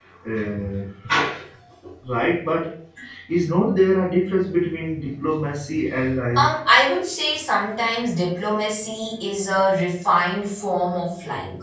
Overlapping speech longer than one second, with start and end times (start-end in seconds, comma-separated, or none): none